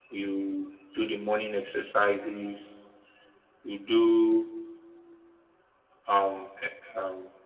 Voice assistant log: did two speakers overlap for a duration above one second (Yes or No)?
No